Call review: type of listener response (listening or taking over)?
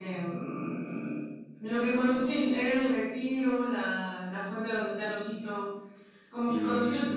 taking over